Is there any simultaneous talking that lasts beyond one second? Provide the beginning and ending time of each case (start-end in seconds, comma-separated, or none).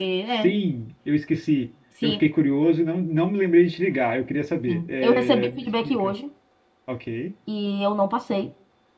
4.7-6.1